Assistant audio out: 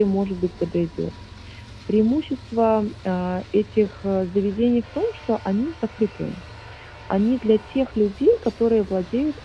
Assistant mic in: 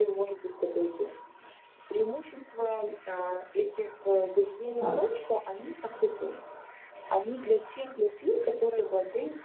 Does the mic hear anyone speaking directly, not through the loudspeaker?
Yes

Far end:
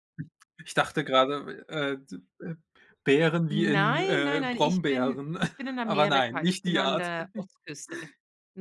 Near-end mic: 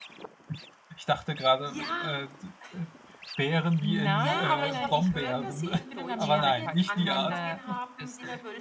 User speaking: Yes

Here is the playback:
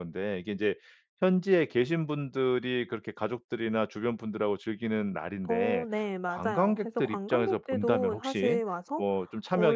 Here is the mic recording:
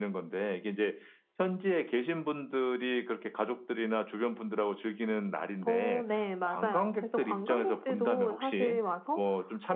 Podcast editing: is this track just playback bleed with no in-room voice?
Yes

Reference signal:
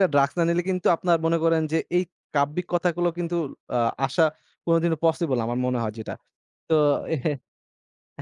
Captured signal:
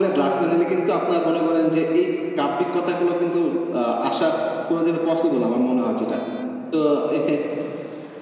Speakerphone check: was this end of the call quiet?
Yes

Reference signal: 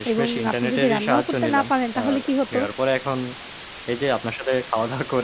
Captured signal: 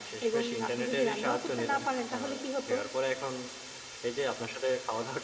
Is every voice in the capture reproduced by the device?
Yes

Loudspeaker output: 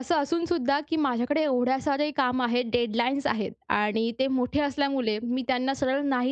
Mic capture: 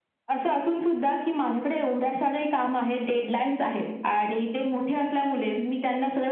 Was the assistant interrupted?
No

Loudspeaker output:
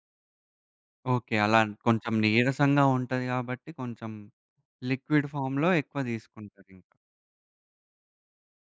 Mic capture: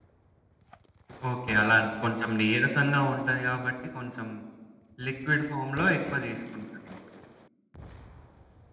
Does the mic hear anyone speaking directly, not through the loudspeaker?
No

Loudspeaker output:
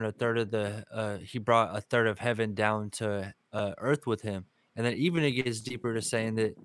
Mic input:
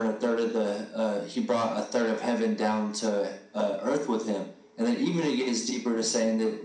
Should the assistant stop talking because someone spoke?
No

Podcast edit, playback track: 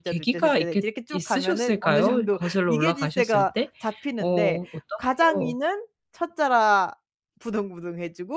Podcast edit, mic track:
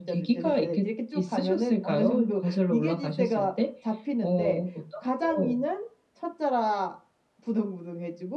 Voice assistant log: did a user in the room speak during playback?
No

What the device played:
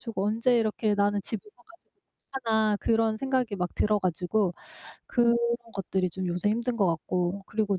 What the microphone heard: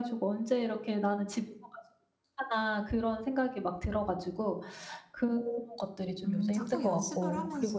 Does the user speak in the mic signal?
Yes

